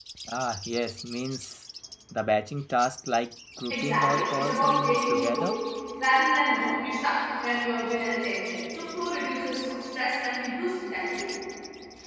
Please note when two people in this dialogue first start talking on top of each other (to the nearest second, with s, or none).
4 s